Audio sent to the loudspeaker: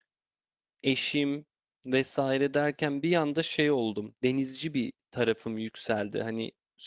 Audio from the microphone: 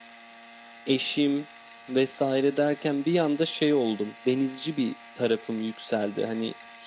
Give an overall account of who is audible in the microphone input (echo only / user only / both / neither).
echo only